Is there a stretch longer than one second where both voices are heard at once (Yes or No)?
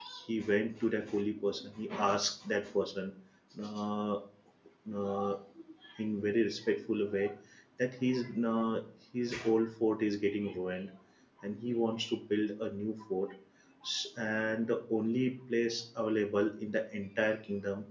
No